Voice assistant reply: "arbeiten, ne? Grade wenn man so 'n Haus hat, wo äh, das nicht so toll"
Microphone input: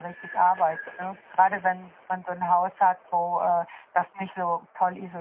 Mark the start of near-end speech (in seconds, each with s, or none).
none